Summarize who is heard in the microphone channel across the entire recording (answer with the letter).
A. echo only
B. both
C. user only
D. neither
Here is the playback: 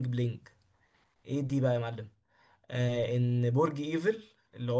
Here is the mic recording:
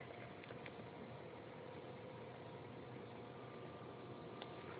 D